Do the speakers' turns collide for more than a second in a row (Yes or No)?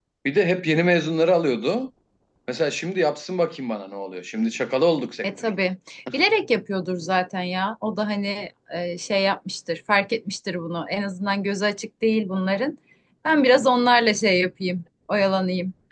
No